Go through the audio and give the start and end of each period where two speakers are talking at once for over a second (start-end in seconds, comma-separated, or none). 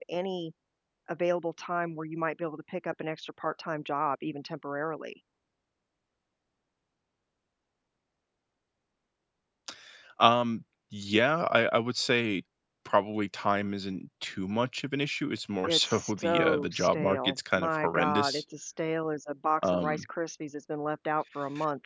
15.6-18.4